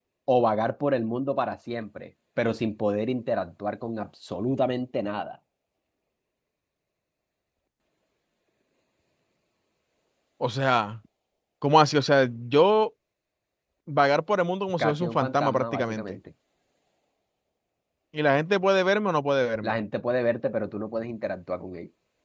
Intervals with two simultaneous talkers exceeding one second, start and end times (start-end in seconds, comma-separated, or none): 14.8-16.2